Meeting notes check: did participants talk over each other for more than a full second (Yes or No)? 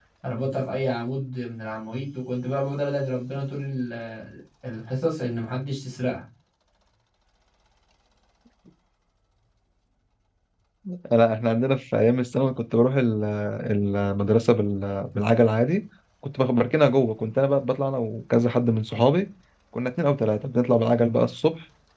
No